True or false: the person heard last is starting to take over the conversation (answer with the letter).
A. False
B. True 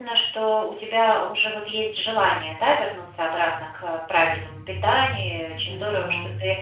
A